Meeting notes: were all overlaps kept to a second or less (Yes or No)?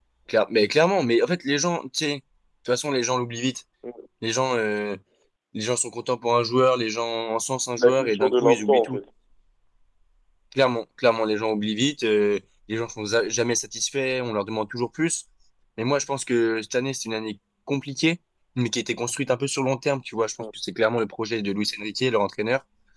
No